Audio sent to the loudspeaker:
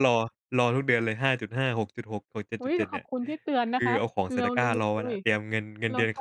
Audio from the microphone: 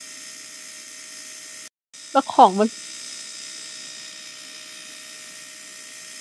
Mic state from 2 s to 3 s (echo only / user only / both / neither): user only